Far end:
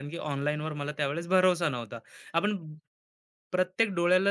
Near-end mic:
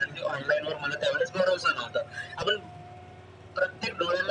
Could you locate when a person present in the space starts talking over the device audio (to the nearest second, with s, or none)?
none